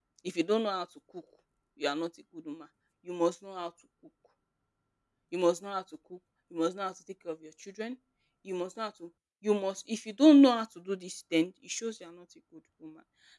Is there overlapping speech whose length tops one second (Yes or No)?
No